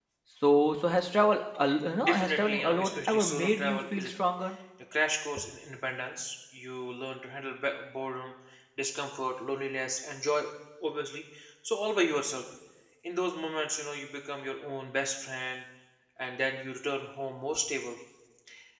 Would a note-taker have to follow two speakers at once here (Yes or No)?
Yes